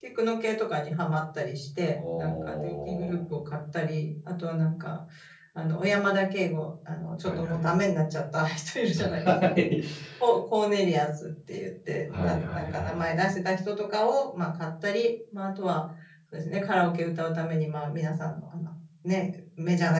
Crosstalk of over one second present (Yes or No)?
Yes